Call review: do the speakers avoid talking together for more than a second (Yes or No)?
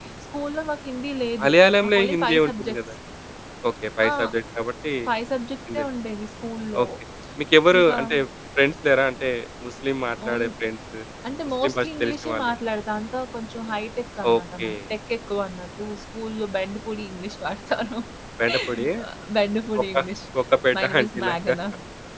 No